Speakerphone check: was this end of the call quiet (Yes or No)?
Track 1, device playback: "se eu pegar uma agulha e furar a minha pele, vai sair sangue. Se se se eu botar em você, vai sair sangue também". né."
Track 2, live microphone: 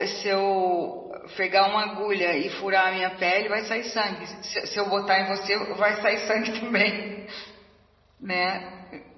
Yes